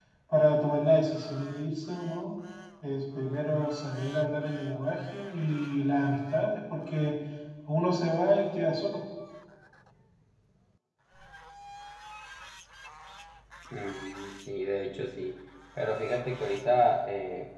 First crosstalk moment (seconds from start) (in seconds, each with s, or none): none